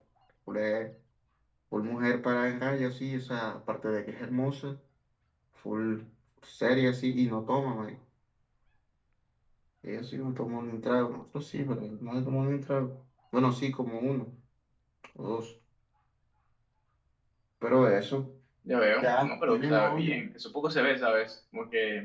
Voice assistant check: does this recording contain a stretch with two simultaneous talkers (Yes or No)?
Yes